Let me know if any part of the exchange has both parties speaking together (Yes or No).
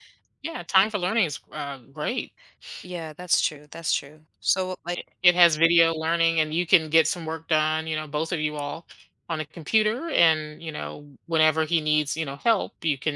No